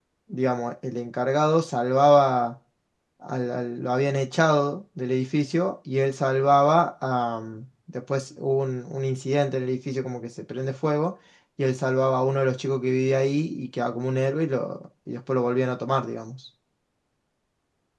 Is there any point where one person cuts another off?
No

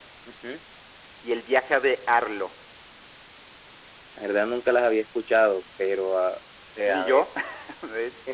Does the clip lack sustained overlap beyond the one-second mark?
Yes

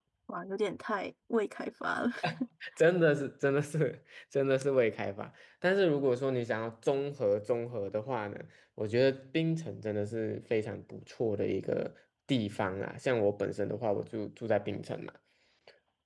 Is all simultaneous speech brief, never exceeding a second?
Yes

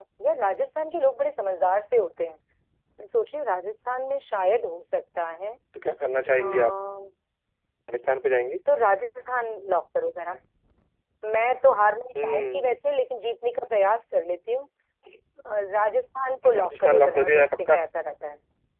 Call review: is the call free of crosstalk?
No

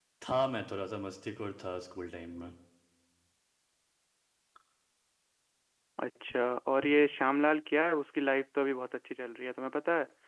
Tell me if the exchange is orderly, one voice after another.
Yes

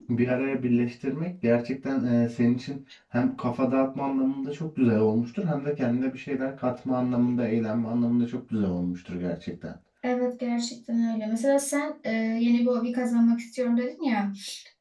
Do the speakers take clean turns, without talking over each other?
Yes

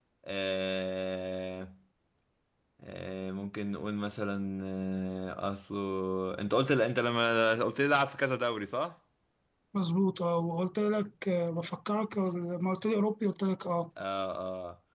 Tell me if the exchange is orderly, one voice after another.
Yes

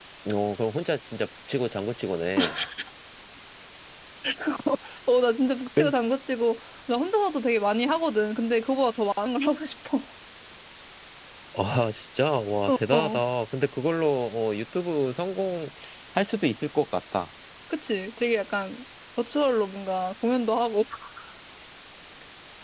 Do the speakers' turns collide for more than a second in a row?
No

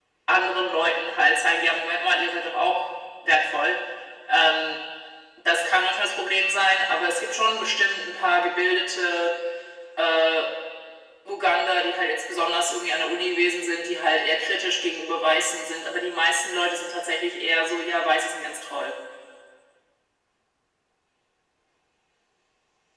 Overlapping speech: No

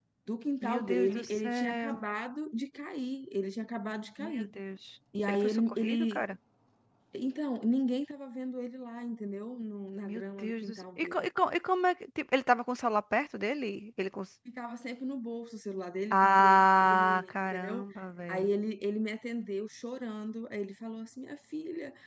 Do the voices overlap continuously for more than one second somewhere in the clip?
Yes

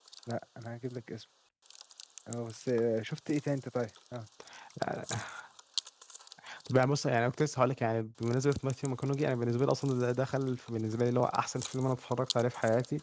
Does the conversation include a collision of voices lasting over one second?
No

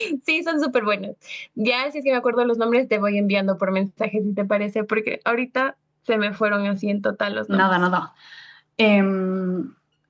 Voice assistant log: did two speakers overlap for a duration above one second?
No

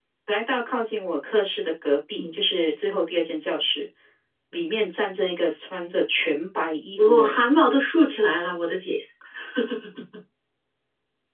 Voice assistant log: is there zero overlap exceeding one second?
Yes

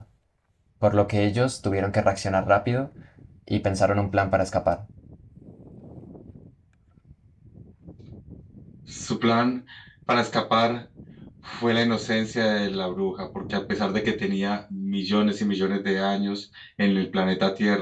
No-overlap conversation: Yes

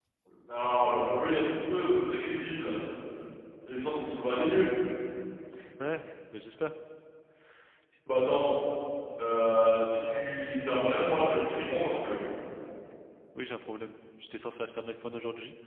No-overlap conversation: Yes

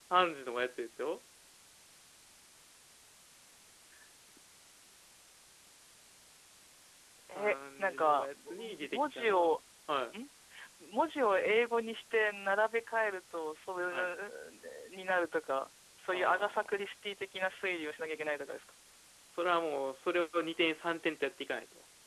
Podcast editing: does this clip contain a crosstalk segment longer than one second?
Yes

